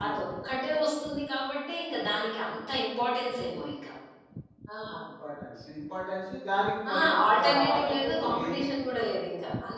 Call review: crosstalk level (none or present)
present